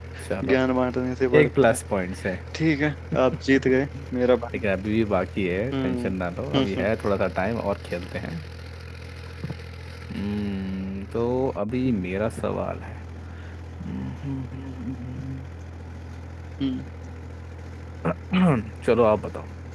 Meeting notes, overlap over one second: none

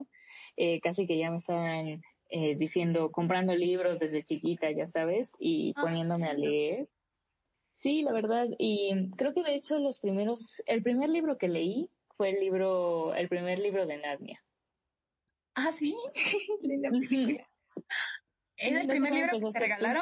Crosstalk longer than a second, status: present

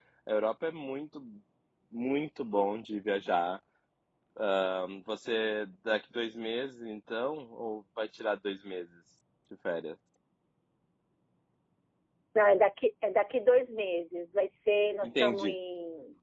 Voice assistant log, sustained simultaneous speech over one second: none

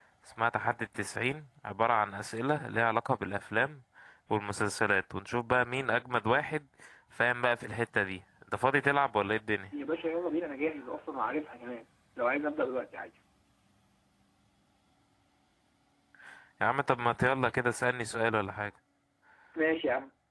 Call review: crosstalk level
none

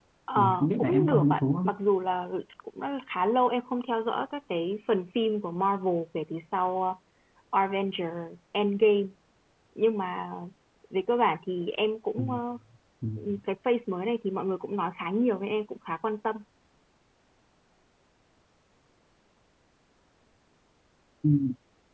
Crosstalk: present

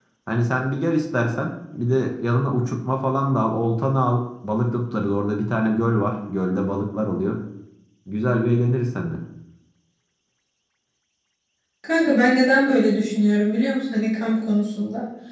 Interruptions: none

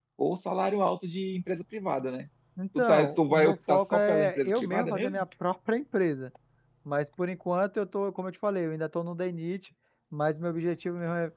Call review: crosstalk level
present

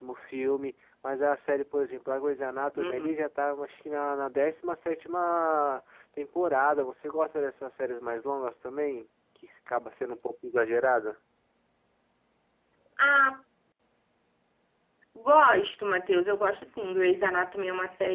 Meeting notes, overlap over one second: none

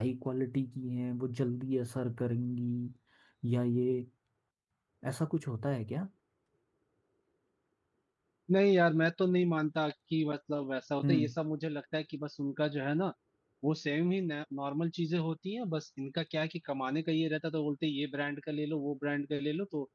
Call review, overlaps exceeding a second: none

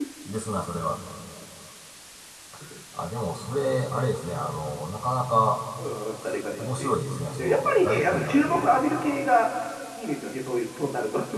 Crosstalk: present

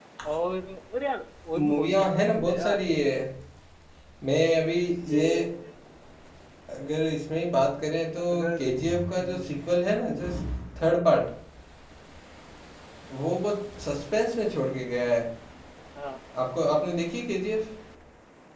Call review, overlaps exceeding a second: present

